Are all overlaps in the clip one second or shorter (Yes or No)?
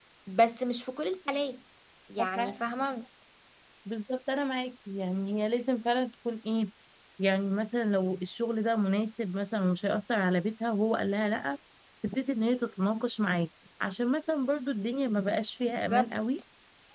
Yes